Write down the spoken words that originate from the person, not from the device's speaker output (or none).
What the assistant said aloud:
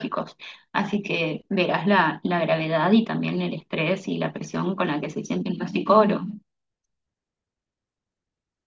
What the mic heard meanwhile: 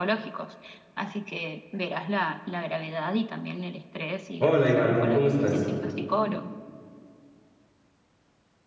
Hola, Ivana, ¿cómo estás?